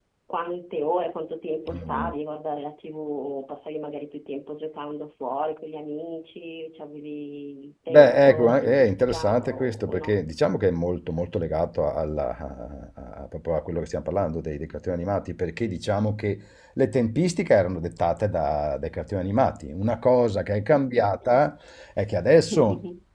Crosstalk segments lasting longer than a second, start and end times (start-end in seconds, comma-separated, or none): 7.9-10.2